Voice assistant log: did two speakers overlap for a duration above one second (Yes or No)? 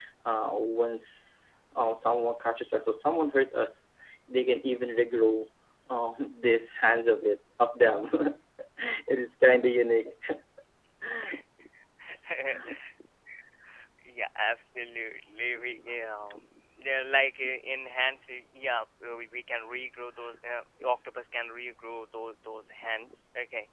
No